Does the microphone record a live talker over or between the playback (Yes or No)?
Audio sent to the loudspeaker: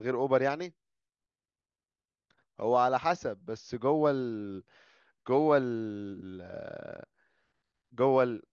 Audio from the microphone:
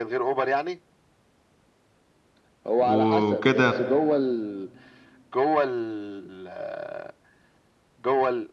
Yes